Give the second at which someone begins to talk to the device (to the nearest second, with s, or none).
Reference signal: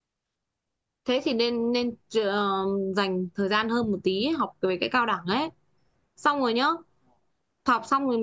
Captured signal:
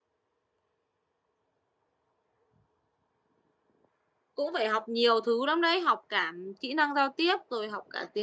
4 s